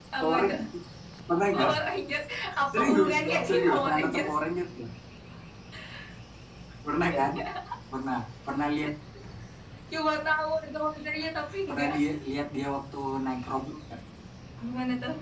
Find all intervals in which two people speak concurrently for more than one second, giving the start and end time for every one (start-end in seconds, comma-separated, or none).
2.7-4.3